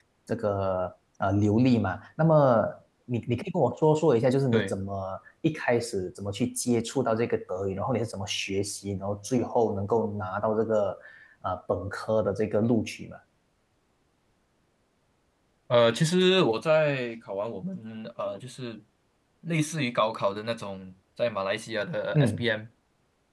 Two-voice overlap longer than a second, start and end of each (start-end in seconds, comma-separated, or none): none